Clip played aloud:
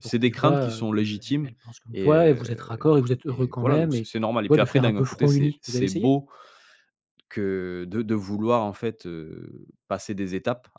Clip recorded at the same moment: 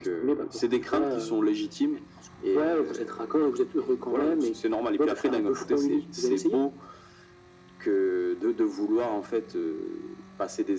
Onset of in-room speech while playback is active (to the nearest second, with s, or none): none